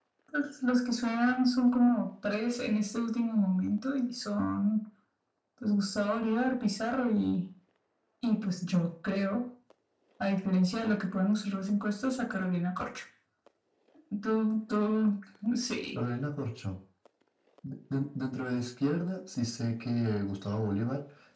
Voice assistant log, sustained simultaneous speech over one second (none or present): none